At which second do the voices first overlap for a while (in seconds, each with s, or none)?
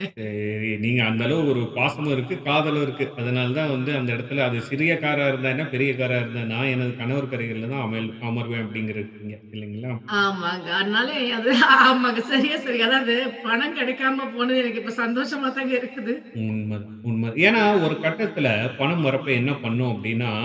none